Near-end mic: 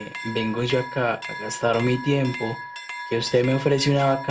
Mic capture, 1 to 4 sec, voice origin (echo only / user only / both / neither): user only